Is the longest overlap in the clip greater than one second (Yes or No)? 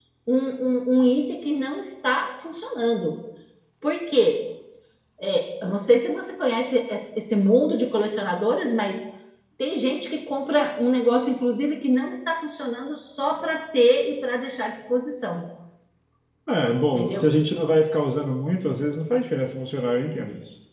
No